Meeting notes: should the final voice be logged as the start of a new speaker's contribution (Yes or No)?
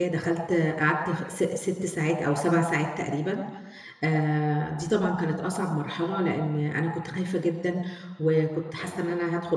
No